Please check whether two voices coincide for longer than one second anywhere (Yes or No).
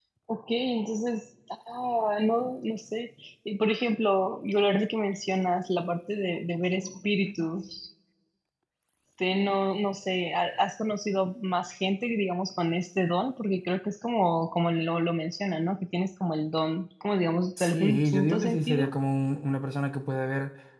Yes